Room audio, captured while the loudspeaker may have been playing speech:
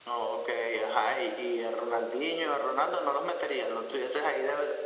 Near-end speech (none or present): none